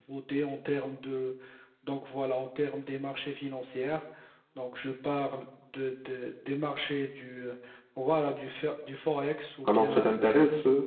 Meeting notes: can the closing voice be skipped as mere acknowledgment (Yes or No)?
No